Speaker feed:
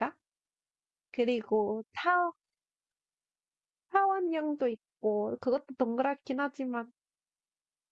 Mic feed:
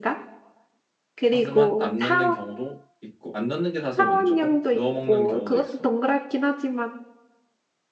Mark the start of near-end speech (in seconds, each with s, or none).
1.2 s